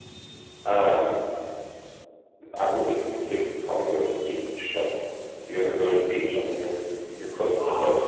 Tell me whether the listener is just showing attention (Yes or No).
No